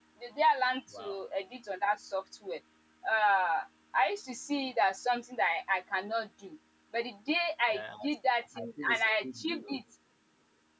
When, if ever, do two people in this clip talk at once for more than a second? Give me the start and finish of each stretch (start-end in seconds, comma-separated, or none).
8.6-9.8